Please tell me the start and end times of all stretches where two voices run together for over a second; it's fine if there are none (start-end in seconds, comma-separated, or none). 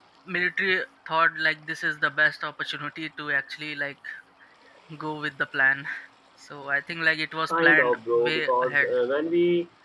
7.5-9.0